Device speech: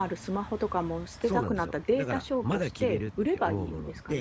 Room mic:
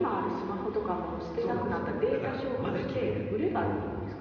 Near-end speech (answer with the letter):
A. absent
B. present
A